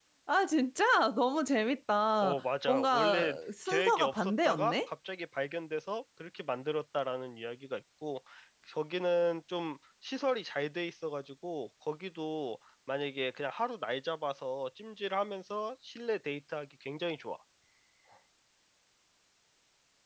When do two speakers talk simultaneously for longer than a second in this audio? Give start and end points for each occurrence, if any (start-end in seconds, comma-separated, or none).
2.2-4.9